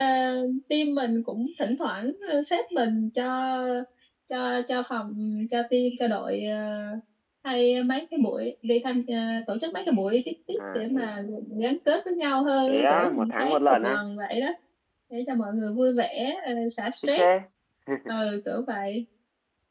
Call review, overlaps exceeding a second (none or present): present